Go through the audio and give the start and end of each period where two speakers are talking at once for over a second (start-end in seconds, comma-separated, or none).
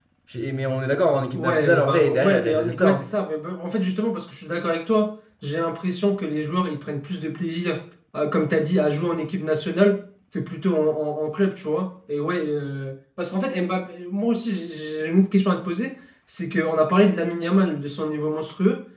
1.3-3.0